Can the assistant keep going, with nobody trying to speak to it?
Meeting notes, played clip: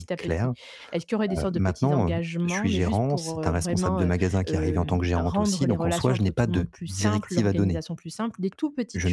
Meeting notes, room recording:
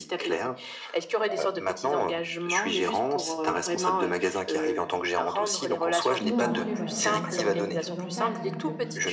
No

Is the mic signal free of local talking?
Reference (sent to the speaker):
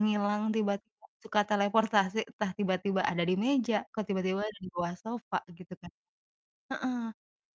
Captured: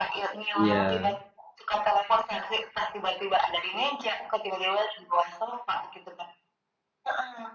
No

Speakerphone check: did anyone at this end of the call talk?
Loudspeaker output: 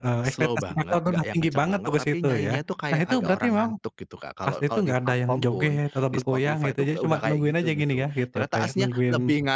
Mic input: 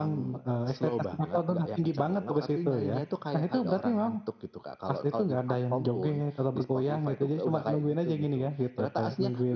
No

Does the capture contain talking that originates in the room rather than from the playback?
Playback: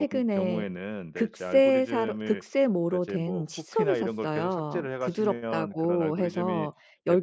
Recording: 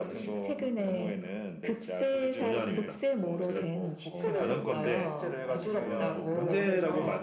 Yes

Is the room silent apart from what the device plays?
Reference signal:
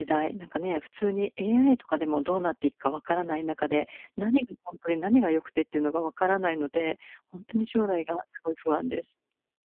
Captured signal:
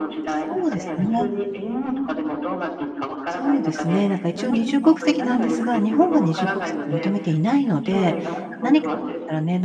No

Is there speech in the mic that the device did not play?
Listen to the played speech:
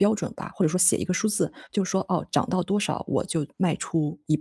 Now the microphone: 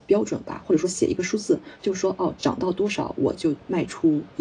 No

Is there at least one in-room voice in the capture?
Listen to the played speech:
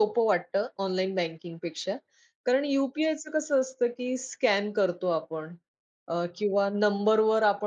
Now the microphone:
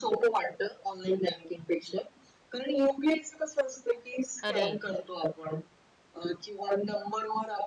Yes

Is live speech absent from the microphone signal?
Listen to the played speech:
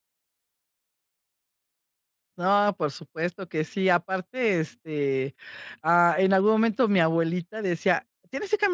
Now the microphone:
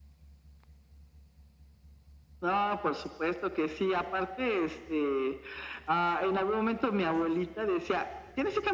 Yes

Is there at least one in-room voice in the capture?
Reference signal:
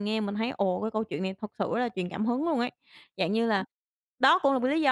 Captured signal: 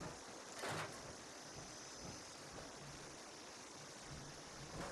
No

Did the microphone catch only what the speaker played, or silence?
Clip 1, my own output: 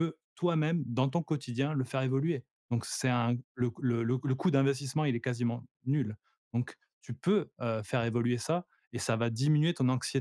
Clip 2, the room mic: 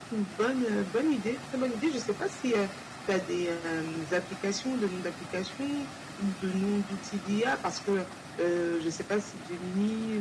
No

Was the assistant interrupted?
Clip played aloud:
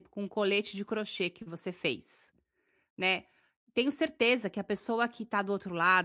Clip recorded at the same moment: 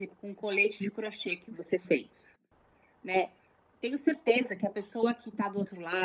No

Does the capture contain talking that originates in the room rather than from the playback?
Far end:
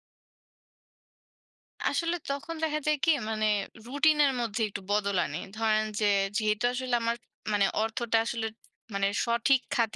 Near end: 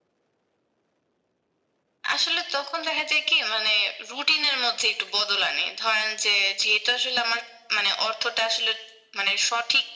No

